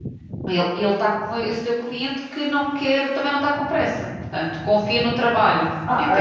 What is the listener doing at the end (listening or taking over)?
taking over